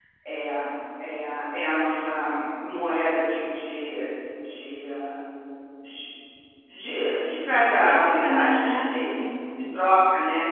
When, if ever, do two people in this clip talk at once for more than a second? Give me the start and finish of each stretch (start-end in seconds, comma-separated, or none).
7.7-9.0